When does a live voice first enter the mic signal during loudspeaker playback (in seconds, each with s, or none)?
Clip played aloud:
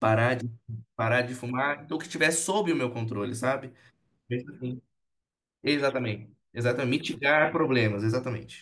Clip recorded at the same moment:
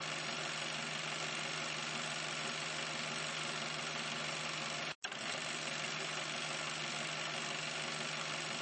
none